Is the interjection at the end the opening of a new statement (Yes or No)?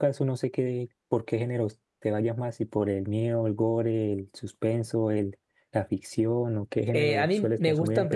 Yes